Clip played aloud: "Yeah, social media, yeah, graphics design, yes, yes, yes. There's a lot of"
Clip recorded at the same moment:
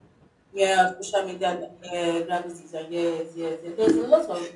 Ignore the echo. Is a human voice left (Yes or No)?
No